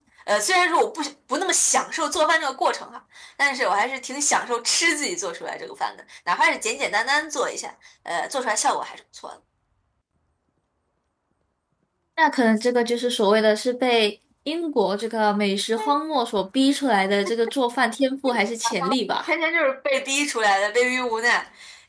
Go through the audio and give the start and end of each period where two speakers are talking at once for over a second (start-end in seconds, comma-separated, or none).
none